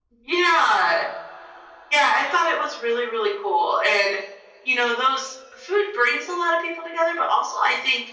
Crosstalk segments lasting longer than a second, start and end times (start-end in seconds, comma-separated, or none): none